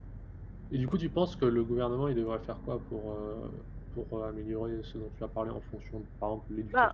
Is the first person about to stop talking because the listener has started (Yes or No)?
Yes